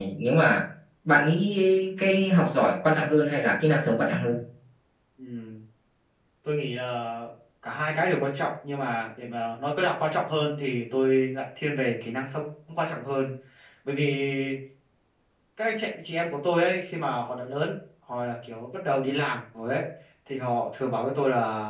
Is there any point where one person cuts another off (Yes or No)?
No